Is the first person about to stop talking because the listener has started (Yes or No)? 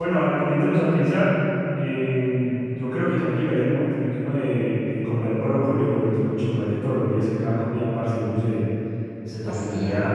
No